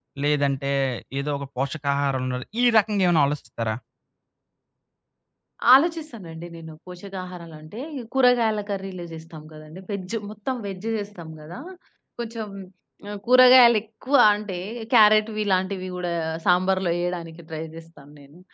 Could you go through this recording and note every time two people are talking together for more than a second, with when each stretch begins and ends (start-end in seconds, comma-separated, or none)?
none